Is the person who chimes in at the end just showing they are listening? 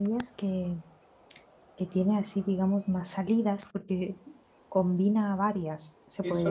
No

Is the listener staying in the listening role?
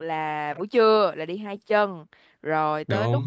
Yes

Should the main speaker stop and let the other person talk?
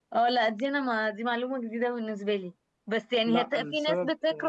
No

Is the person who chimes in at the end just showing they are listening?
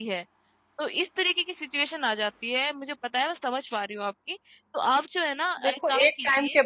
No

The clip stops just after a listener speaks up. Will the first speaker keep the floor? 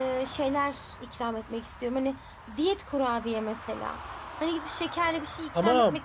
No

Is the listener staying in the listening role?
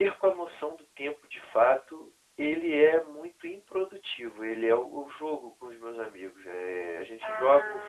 Yes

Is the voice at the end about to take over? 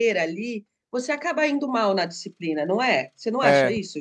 Yes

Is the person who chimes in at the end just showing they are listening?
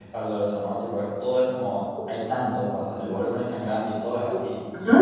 No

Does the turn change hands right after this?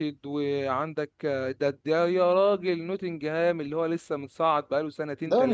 Yes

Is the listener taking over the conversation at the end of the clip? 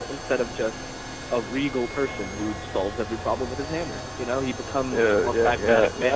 Yes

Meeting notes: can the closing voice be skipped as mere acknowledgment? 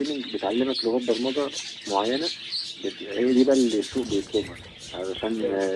Yes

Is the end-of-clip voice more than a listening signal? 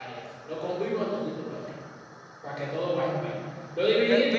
Yes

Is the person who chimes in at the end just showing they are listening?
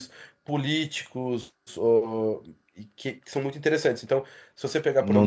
Yes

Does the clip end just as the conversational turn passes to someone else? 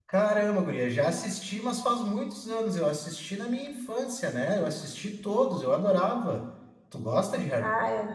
Yes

